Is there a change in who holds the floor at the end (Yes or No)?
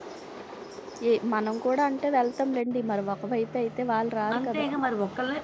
Yes